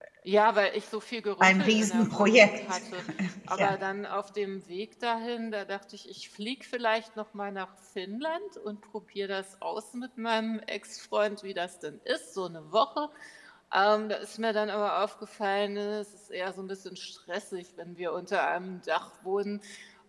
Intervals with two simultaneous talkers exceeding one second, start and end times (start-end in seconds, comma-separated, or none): 1.4-2.8